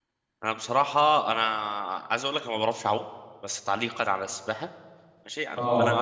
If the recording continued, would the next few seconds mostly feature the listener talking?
No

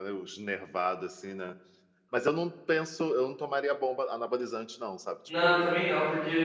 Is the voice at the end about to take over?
Yes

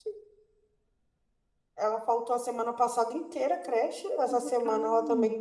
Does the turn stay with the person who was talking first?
Yes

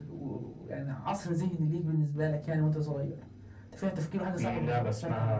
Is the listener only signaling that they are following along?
No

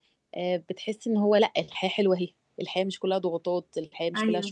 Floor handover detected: Yes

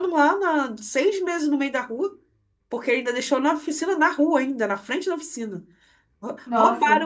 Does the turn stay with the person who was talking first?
Yes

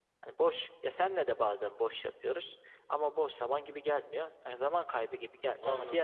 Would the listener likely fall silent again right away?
Yes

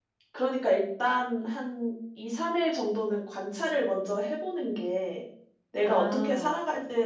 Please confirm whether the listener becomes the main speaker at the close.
No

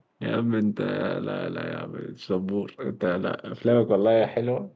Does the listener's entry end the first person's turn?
No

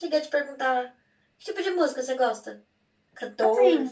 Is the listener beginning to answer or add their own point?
Yes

